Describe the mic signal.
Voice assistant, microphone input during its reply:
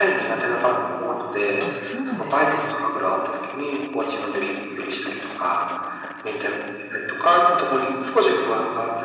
both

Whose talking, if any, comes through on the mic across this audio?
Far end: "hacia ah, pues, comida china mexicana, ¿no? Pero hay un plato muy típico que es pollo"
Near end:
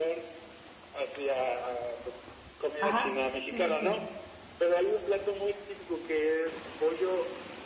both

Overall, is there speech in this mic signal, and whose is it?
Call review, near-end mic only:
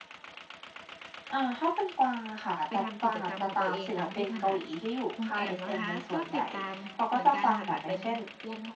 both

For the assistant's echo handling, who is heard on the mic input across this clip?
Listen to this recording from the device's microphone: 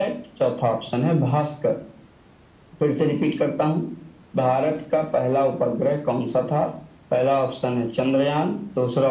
echo only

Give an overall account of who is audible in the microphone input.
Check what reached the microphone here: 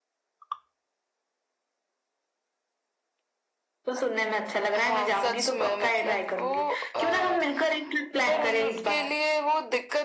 echo only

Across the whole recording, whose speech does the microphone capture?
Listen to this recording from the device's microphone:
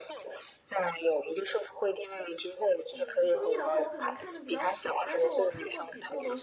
both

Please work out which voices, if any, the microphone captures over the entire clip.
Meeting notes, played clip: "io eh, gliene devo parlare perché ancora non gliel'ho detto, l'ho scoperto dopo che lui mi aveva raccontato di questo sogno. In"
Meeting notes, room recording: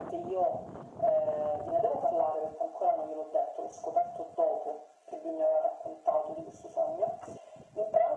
echo only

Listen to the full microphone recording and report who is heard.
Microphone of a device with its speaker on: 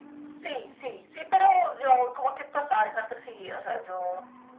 echo only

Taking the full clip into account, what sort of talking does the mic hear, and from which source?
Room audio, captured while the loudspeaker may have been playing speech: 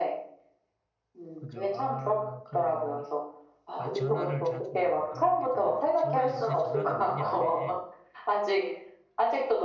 both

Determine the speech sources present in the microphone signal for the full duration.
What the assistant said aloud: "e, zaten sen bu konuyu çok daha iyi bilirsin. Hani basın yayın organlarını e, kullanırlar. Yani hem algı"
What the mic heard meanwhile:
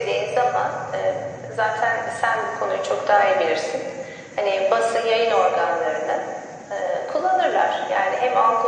echo only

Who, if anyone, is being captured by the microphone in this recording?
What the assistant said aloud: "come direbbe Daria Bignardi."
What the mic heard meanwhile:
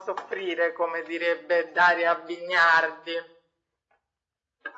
echo only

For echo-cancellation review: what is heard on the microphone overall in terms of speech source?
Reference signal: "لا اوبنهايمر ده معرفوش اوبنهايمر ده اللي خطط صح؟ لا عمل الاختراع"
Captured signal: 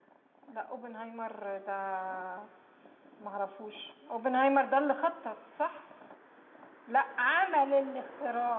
echo only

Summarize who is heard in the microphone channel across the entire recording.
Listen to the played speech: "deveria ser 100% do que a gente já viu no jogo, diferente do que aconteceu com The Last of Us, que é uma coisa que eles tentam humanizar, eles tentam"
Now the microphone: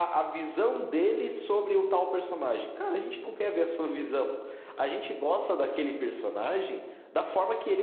user only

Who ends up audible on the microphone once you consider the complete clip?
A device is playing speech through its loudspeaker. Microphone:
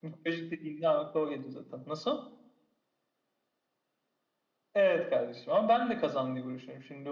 echo only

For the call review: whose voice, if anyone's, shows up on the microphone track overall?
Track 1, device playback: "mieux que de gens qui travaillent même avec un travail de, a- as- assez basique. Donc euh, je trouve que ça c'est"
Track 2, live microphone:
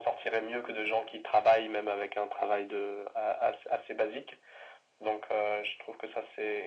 echo only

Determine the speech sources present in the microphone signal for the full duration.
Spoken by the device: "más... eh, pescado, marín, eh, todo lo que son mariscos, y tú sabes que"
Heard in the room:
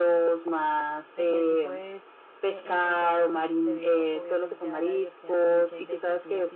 both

